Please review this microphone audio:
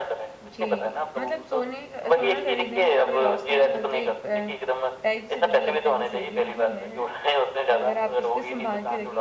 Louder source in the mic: echo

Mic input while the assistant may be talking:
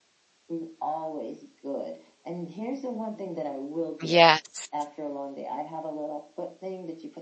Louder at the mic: user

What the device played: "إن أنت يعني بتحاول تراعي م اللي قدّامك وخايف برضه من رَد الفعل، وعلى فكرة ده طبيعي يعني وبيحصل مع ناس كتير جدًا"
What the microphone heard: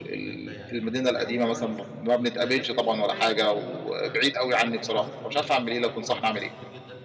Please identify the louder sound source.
user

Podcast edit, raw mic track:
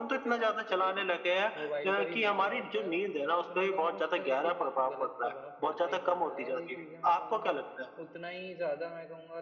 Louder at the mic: echo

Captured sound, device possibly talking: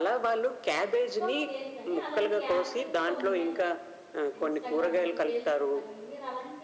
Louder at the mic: echo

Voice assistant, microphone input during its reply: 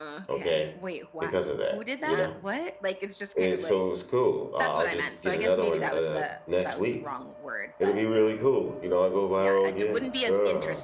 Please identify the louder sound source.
user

